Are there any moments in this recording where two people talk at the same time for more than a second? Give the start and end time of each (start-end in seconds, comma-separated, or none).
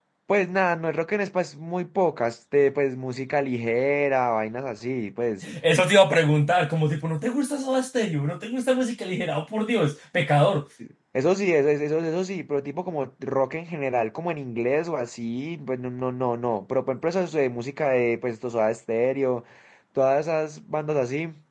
none